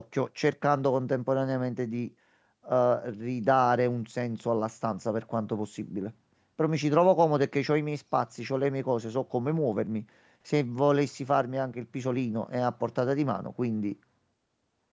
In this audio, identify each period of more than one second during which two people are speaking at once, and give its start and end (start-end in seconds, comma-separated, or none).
none